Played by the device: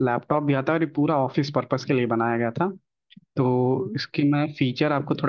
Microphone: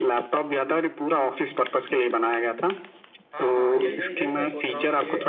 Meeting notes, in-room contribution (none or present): present